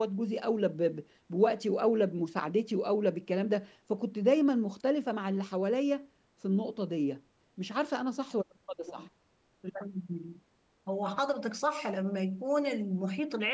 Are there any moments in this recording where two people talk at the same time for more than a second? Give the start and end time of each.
none

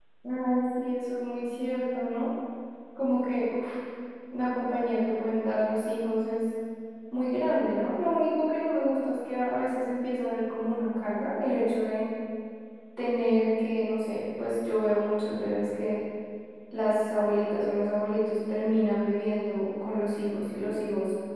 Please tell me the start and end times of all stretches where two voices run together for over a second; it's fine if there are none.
none

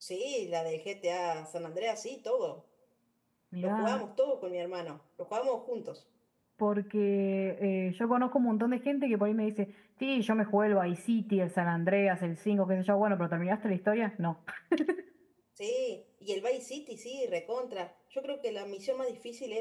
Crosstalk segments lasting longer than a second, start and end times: none

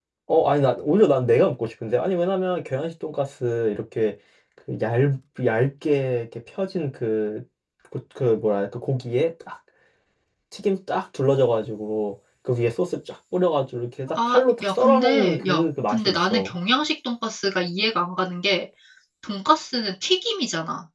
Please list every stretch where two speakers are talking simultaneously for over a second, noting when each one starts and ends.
14.1-16.5

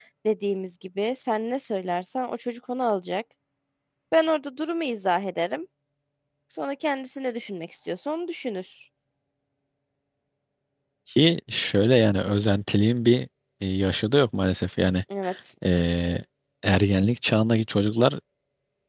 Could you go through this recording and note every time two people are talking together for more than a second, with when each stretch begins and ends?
none

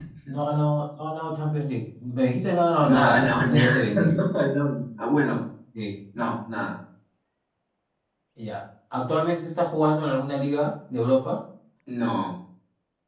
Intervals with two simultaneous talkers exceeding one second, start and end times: 2.8-4.1

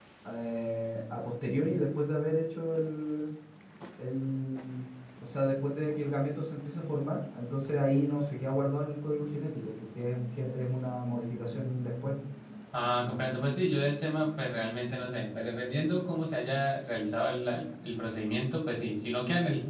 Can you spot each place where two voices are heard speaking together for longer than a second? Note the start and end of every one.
none

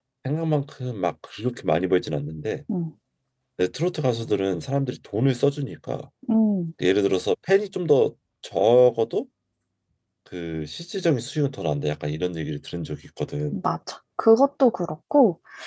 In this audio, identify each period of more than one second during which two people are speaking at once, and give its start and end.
none

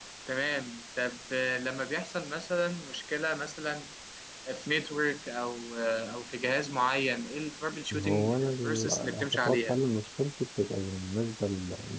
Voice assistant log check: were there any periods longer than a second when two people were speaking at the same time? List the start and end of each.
7.9-9.8

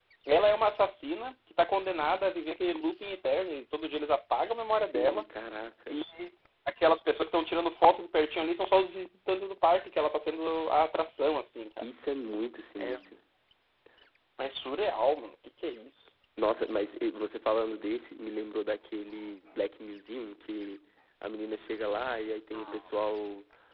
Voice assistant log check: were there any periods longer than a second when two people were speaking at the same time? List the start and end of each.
none

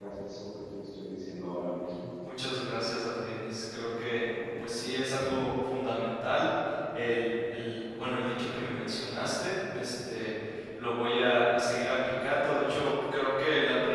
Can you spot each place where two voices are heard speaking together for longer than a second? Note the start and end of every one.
none

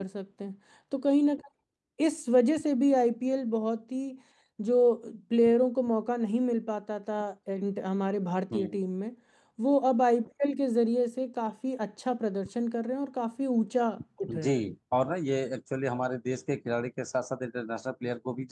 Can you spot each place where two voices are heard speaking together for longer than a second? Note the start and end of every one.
none

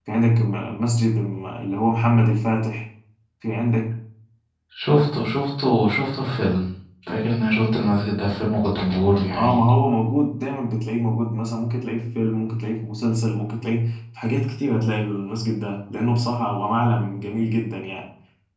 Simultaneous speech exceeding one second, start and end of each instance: none

